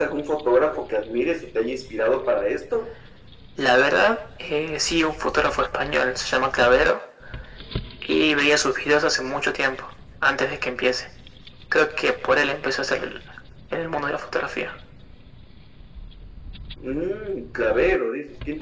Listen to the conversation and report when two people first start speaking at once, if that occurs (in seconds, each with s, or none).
none